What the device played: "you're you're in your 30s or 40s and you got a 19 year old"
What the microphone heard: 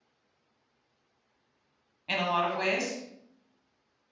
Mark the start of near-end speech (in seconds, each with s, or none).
2.1 s